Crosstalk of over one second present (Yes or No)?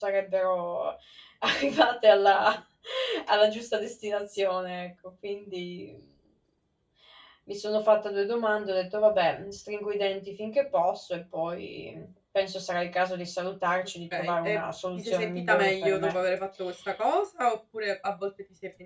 Yes